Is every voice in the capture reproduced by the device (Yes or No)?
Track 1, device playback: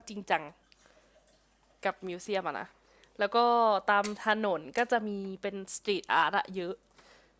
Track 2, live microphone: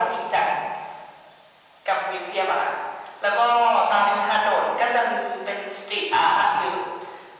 Yes